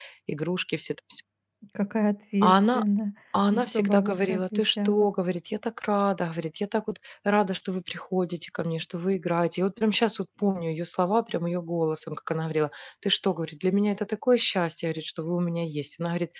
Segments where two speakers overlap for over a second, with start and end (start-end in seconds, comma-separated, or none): 3.5-5.1